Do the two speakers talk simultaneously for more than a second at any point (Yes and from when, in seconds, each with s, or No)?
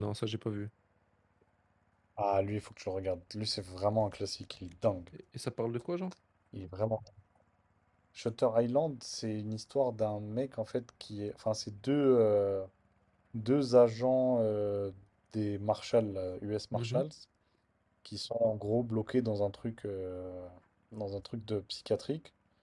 No